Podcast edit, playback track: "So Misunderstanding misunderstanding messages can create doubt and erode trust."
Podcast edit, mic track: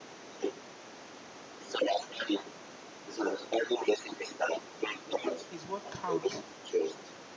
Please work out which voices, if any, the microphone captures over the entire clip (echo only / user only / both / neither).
both